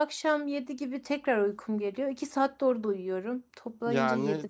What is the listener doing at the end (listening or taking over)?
taking over